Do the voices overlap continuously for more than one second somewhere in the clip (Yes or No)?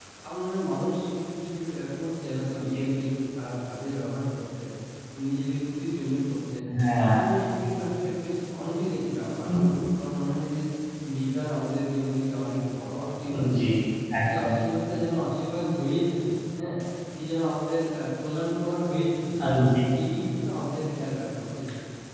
No